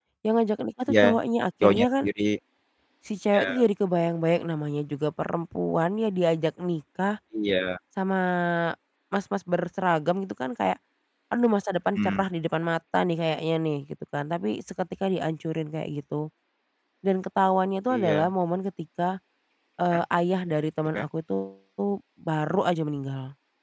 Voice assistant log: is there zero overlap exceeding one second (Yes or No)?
Yes